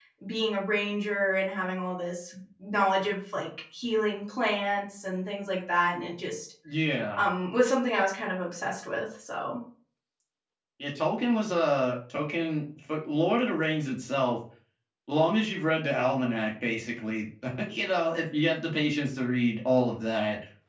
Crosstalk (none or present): none